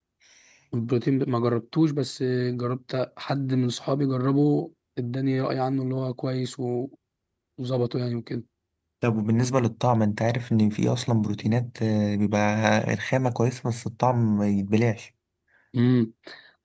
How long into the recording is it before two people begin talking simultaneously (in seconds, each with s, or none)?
none